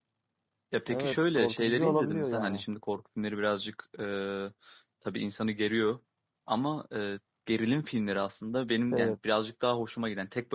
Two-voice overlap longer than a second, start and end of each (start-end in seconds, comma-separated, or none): 0.9-2.6